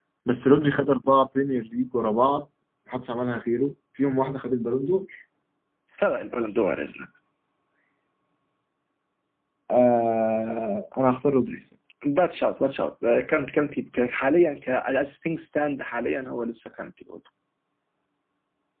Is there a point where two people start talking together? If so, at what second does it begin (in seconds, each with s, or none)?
none